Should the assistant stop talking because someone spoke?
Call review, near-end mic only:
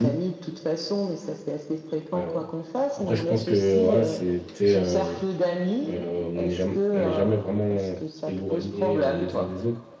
Yes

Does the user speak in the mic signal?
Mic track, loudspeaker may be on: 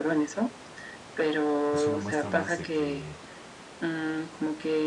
Yes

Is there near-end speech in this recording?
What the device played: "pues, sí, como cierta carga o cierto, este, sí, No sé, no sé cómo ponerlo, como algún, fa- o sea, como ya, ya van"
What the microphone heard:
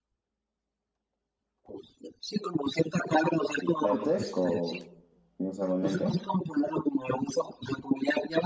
Yes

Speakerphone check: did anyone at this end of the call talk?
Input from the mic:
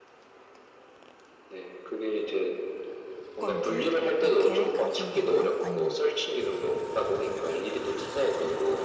Yes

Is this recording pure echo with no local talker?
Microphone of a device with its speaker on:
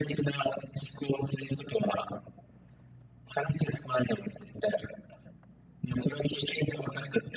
Yes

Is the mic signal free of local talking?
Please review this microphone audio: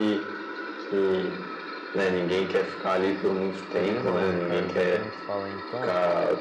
No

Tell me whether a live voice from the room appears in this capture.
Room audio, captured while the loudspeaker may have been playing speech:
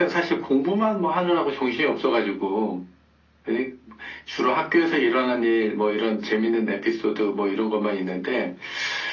No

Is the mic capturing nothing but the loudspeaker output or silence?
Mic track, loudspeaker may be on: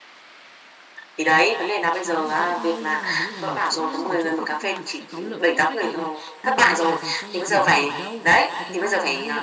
No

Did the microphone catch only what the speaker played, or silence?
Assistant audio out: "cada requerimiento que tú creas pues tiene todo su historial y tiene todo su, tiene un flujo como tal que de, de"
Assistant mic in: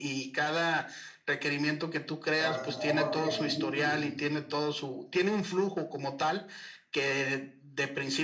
No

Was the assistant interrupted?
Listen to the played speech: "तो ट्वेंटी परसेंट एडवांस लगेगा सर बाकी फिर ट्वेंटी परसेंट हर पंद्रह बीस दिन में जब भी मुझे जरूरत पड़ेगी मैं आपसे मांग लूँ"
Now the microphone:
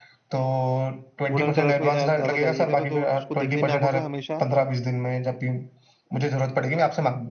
Yes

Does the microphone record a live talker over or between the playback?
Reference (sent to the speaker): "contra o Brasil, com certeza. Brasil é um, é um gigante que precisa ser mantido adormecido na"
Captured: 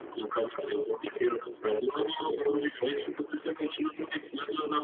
No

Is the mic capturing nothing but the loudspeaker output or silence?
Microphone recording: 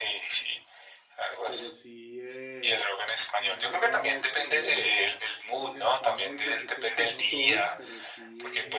No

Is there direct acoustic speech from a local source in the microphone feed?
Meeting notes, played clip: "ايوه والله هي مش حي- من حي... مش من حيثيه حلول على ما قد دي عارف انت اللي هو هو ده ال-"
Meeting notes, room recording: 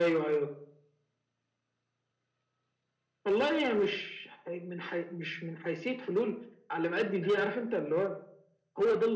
No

